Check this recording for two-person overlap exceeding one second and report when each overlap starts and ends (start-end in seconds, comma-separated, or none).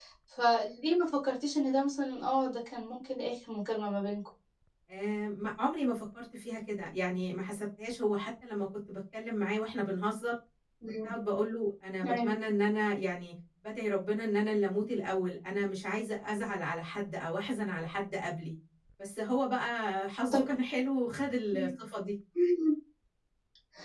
none